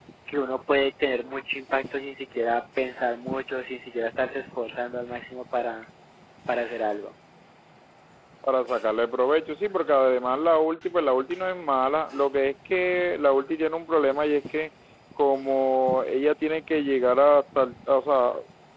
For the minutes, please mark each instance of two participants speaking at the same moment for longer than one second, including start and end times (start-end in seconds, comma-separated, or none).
none